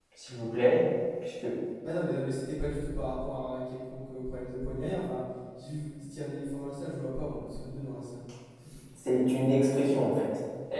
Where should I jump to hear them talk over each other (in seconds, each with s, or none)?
none